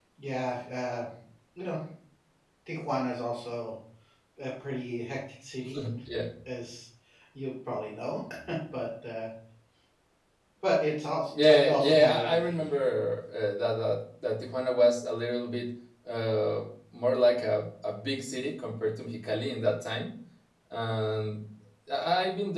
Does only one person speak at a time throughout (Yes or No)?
No